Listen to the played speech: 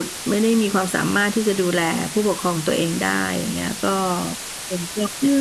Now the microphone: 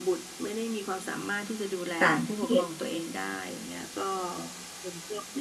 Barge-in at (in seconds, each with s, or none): 2.0 s